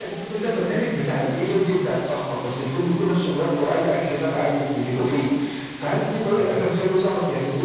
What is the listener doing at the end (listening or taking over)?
listening